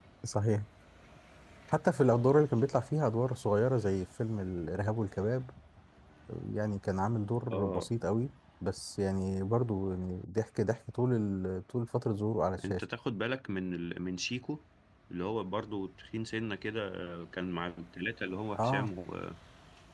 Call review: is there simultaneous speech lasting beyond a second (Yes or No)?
No